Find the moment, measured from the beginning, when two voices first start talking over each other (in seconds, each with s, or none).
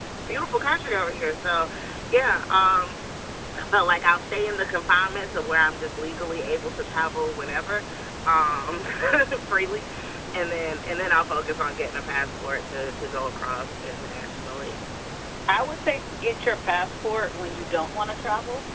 none